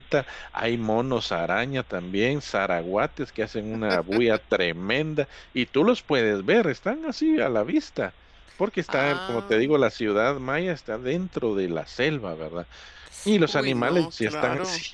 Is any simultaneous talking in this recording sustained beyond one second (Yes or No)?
Yes